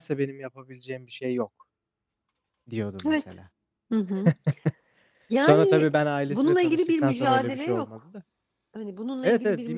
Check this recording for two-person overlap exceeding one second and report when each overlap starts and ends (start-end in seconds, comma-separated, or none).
6.3-7.9